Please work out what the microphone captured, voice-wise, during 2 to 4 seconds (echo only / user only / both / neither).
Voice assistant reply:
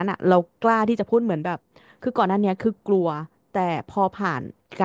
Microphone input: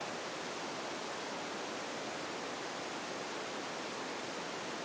neither